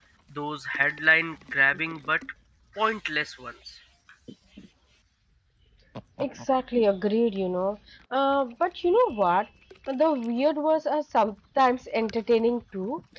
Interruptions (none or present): none